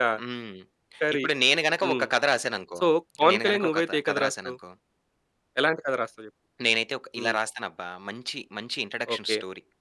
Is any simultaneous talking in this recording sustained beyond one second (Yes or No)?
Yes